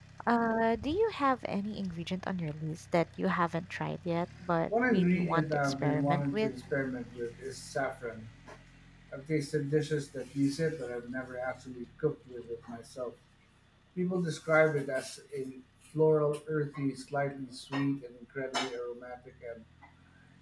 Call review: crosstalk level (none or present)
present